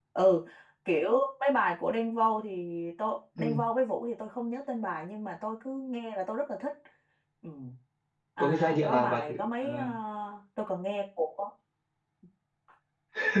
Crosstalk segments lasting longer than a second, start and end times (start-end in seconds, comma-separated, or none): 8.4-9.7